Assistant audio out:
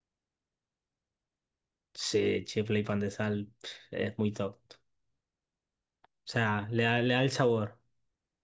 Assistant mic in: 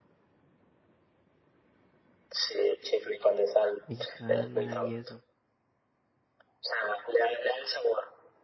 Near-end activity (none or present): present